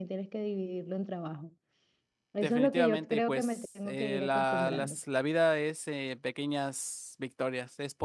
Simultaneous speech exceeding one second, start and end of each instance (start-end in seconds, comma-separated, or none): 2.4-5.0